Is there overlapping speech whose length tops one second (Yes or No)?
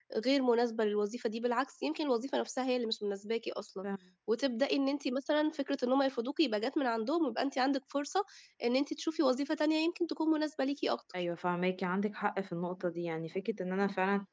No